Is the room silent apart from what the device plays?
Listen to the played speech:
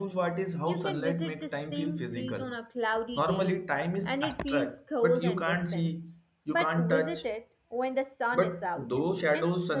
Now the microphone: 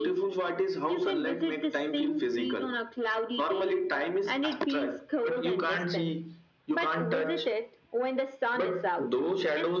Yes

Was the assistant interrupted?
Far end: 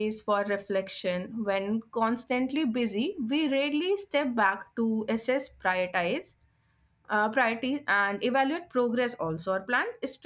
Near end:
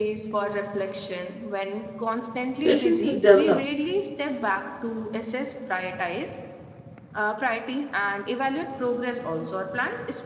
Yes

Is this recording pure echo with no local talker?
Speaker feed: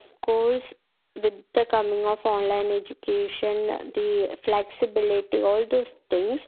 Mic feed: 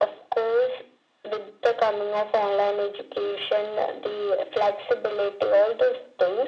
Yes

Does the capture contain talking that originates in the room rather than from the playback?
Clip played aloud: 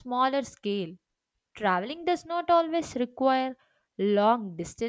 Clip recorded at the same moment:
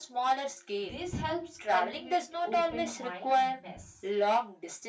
Yes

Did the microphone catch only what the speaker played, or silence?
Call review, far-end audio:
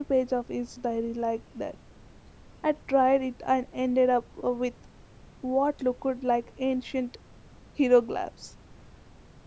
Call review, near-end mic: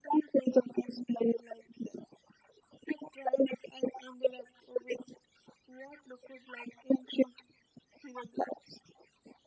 Yes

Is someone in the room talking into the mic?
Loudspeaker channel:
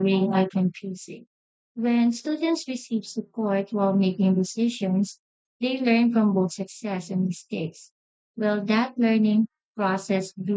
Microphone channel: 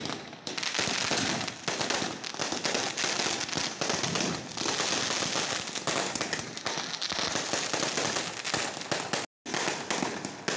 No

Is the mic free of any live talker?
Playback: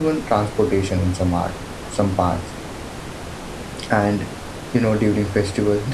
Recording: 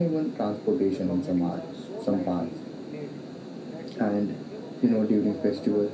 No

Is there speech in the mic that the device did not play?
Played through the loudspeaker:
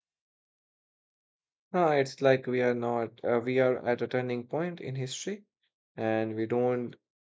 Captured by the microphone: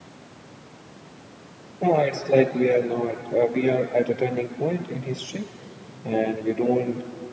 No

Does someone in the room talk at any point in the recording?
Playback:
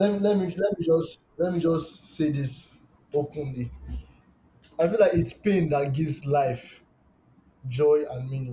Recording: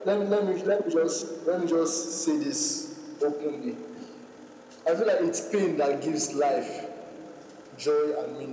No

